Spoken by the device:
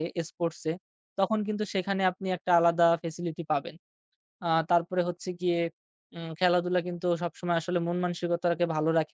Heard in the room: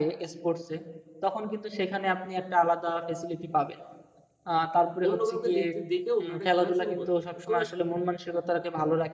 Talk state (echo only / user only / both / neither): both